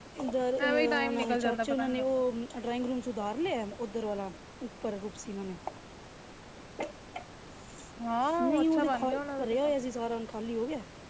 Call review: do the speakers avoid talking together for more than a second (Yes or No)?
No